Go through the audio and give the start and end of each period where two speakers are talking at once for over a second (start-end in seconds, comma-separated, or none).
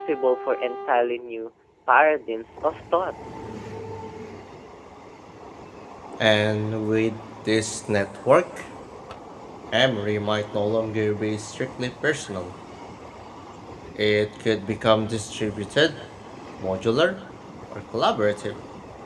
none